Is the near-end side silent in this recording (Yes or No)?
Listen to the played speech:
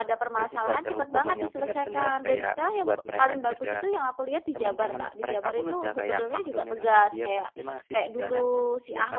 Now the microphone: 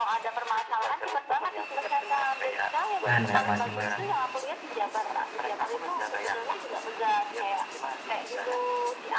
No